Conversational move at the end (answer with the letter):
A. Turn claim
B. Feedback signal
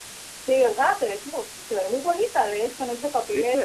B